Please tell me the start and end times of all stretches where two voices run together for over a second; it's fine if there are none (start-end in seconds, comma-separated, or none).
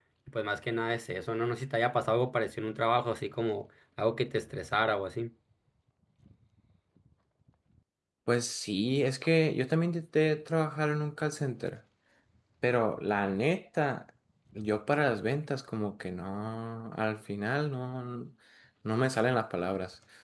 none